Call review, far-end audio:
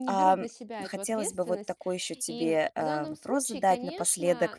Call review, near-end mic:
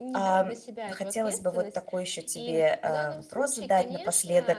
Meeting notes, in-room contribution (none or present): none